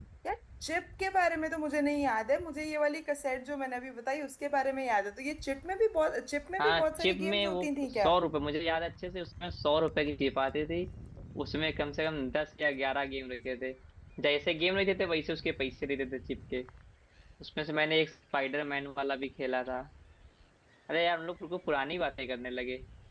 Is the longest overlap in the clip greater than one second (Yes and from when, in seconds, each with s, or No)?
Yes, from 6.6 s